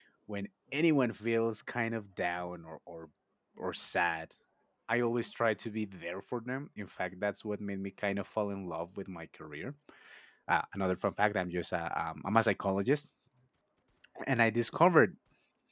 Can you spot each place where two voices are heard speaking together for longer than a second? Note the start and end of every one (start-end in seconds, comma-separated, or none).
none